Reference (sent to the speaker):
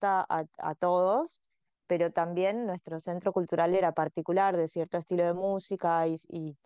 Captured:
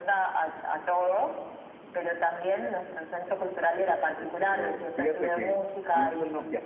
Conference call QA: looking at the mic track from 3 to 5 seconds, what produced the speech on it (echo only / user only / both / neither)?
both